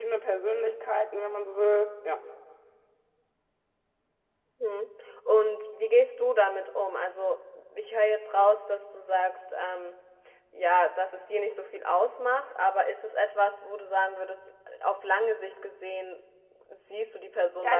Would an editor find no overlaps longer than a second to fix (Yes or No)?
Yes